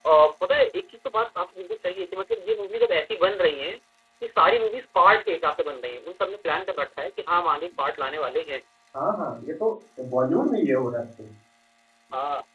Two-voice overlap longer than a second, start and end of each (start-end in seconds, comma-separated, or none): none